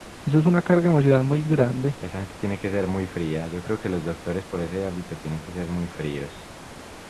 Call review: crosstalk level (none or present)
none